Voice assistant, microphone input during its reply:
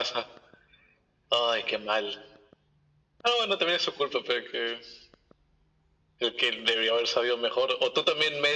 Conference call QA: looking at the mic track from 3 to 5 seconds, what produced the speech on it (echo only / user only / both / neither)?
echo only